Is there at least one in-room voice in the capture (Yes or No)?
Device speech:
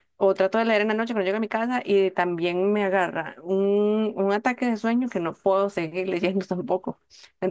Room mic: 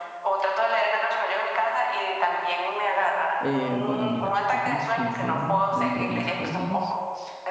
Yes